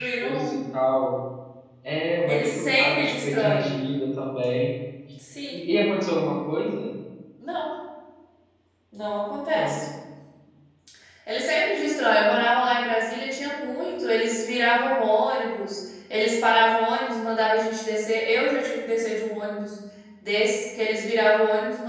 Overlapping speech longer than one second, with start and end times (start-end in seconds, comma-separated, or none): 2.3-3.7